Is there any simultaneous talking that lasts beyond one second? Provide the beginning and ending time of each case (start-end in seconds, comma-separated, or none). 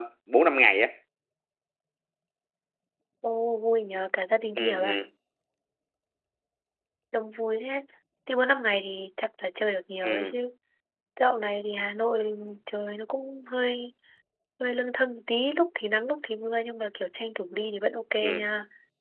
none